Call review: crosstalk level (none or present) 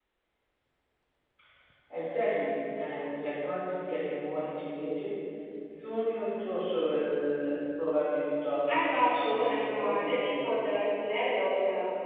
present